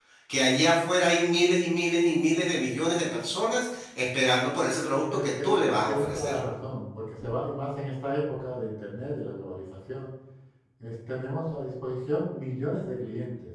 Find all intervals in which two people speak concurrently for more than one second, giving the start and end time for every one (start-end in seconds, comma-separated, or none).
5.0-6.4